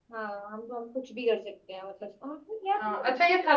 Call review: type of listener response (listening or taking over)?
taking over